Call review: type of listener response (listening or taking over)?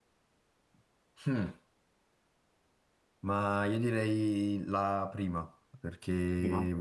listening